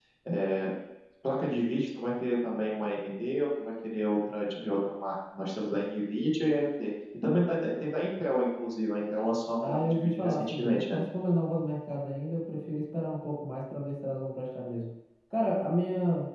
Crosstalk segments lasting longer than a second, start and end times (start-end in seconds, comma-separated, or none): 9.6-11.1